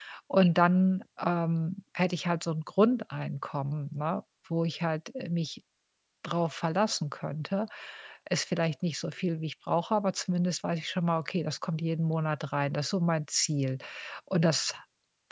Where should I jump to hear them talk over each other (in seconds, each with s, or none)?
none